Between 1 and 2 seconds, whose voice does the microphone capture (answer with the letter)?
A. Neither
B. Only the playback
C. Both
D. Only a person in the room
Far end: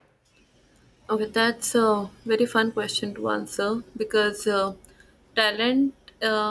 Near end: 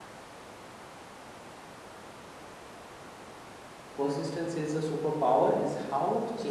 A